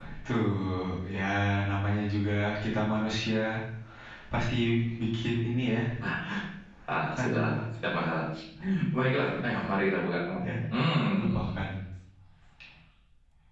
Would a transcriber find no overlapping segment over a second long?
Yes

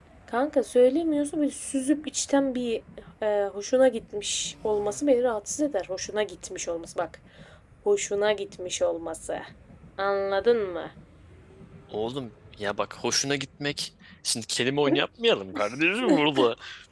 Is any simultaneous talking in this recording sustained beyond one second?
No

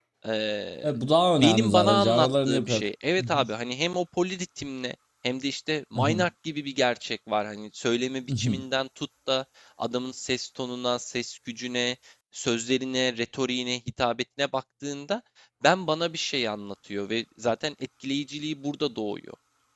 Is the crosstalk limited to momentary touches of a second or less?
No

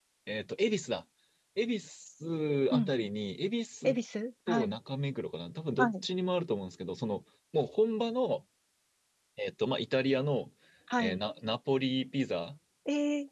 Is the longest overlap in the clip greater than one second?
No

